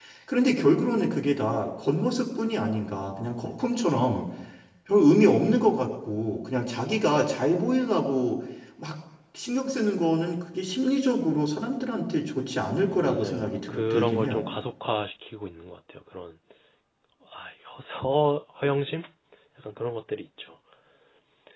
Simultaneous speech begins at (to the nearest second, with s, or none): 13 s